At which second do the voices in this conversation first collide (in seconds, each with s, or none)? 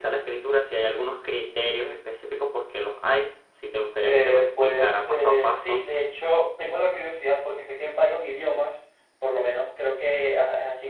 4.0 s